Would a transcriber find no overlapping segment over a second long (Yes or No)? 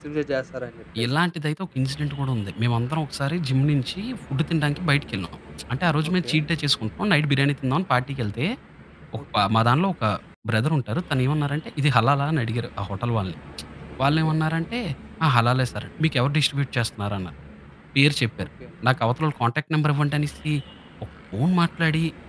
Yes